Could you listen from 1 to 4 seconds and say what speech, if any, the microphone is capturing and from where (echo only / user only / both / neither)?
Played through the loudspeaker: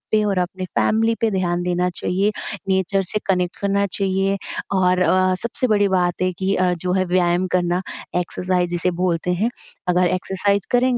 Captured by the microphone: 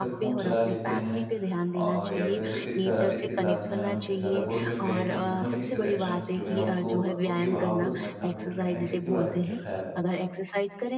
both